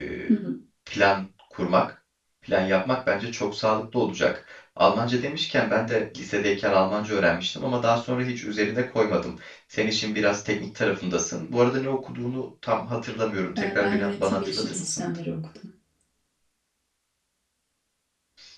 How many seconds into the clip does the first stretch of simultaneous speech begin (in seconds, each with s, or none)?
13.6 s